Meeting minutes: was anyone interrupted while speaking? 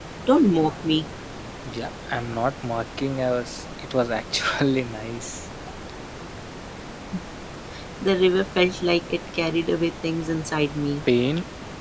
No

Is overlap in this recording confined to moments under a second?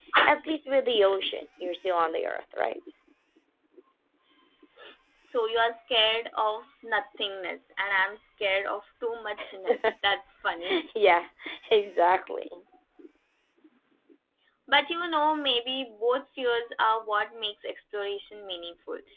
Yes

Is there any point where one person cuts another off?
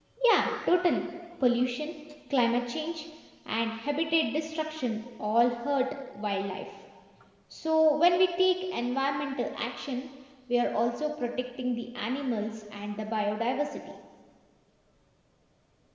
No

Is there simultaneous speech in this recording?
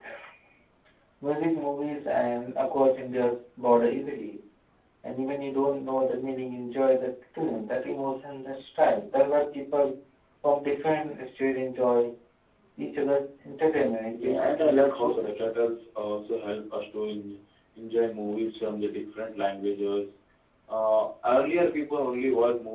Yes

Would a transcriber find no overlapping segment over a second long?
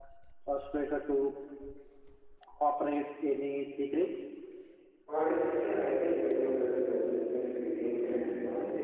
Yes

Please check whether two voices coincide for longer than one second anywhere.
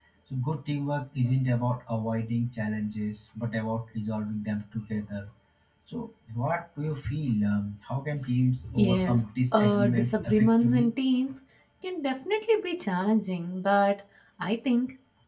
Yes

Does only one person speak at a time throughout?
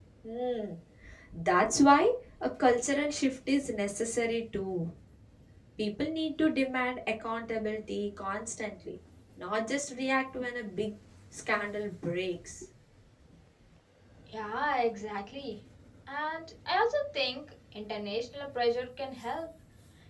Yes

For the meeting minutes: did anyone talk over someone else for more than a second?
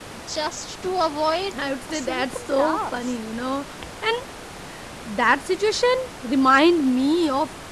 Yes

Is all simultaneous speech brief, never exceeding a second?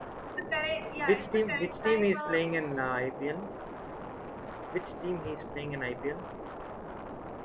No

